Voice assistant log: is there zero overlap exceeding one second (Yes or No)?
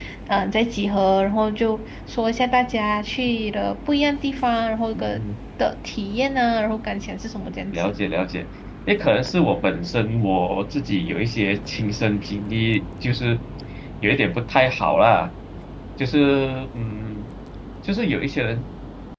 Yes